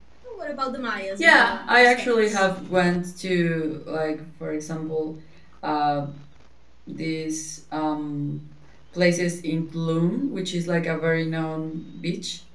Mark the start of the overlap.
1.2 s

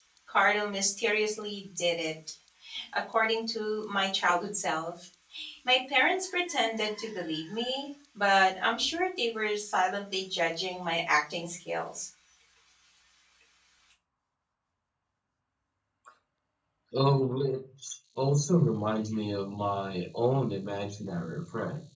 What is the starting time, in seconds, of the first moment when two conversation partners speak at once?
none

